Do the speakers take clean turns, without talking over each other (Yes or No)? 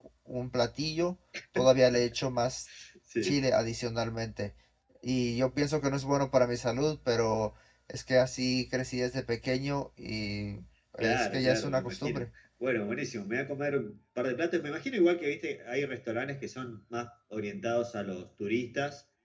No